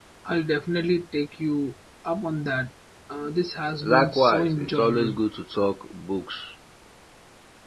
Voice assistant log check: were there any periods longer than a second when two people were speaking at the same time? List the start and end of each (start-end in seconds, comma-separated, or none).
3.8-5.2